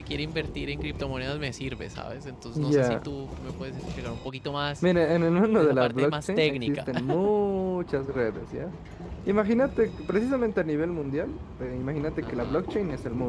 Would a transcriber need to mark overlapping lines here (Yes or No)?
Yes